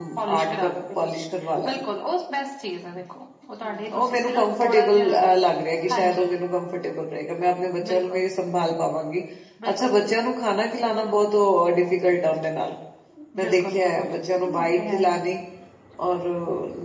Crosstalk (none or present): present